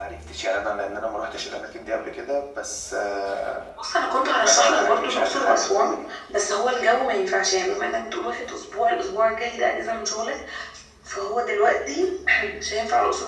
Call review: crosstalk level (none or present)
present